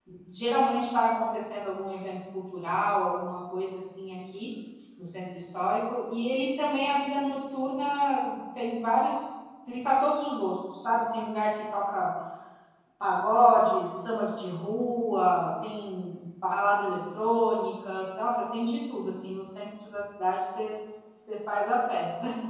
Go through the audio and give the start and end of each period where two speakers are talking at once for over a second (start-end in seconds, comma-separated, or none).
none